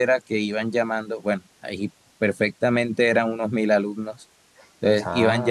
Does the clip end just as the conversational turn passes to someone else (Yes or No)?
No